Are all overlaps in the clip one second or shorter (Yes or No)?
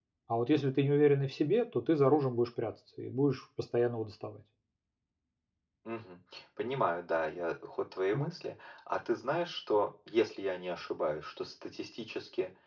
Yes